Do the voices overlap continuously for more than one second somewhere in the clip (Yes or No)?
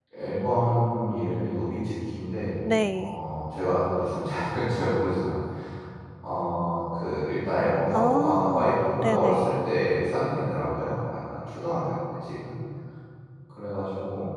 Yes